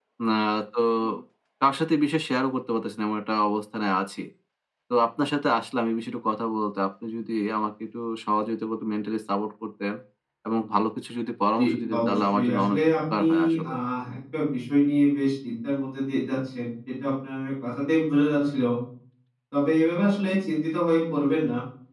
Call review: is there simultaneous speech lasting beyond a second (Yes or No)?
Yes